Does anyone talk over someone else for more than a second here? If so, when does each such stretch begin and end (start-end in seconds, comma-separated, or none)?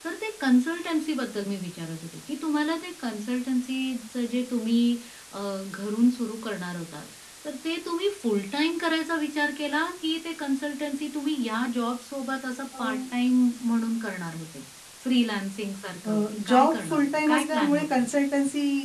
16.0-18.1